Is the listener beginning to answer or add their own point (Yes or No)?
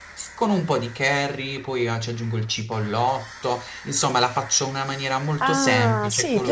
Yes